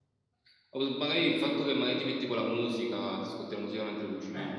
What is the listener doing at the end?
taking over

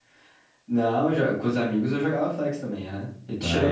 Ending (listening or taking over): taking over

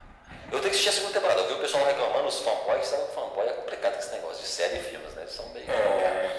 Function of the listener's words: taking over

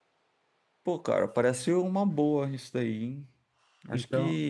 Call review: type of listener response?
listening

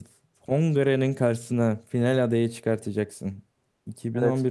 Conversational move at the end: listening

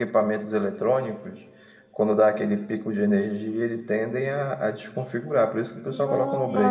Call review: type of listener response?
taking over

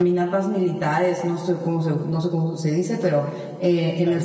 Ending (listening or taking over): listening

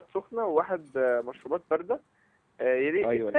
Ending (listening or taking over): listening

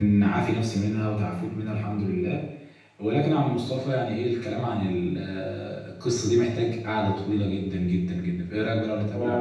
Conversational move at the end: taking over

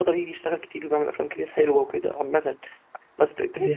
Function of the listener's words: listening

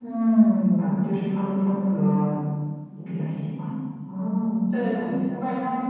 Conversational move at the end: taking over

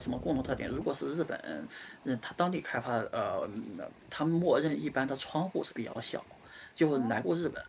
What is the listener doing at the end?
listening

